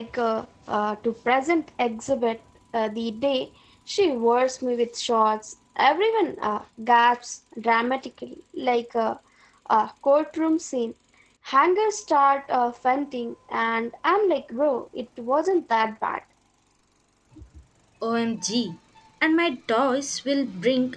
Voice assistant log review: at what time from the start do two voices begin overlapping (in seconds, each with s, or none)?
none